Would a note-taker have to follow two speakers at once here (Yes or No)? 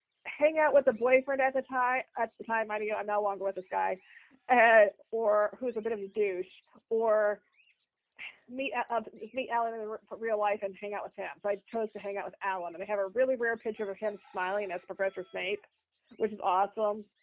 No